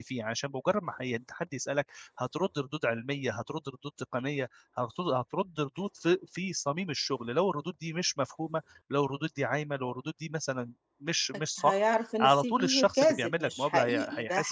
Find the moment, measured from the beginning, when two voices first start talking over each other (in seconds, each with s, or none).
11.6 s